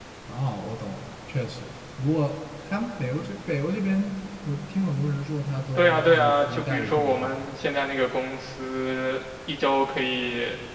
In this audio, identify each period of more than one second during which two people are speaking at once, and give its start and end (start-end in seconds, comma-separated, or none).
5.8-7.4